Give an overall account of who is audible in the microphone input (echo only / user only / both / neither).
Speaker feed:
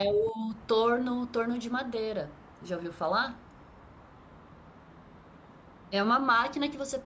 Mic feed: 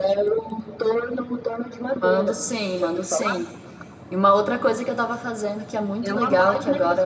both